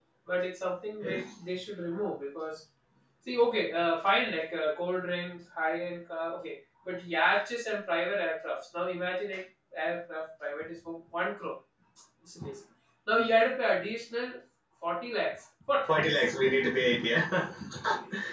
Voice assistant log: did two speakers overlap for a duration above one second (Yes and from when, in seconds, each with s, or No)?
No